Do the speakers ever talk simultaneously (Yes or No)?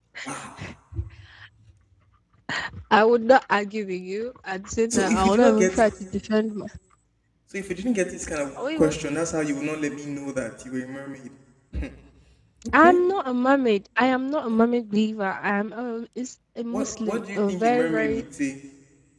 Yes